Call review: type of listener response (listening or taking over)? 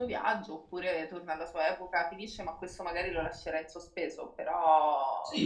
taking over